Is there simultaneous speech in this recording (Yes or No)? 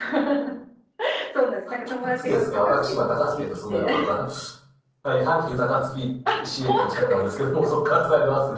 Yes